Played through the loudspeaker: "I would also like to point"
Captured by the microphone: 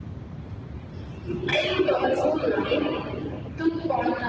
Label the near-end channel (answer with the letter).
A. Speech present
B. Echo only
B